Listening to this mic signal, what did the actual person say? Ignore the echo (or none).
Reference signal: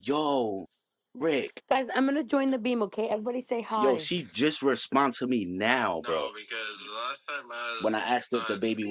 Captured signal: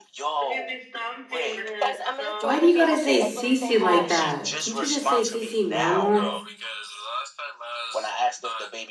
I'll give you some pain in it. No. Why do you gotta say CC like that? Can't you just say CC normal? I'm